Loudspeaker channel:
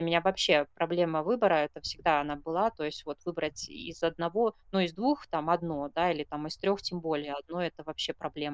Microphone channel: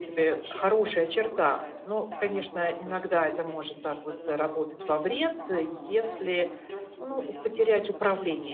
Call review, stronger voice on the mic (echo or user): user